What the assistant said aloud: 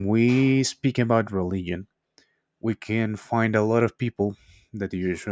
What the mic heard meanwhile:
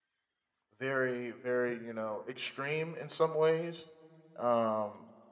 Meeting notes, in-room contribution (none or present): present